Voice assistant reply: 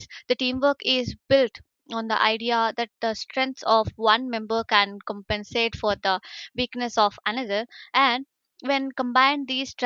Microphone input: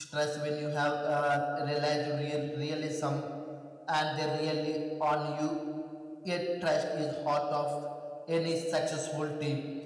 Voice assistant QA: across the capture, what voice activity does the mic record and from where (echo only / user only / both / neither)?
user only